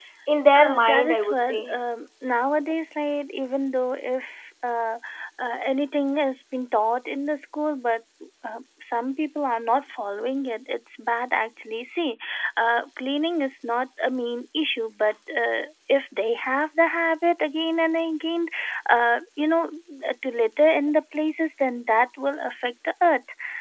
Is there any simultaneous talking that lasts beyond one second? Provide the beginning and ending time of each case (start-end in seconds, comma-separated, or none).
0.6-1.8